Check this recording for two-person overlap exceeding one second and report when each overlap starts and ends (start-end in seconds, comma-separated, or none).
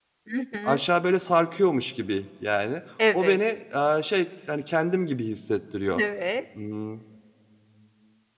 none